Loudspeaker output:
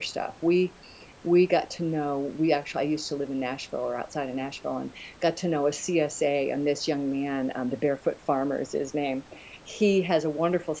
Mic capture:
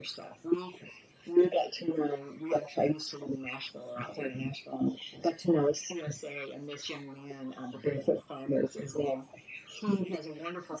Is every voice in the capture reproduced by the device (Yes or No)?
Yes